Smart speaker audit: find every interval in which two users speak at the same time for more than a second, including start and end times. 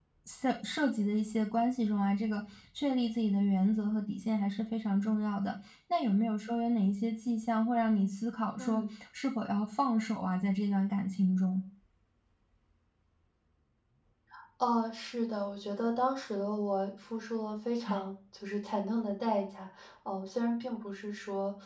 none

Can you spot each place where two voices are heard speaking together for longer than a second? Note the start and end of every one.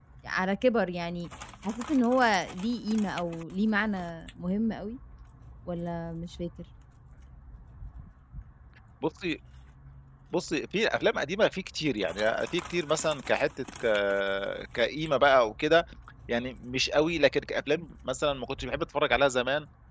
none

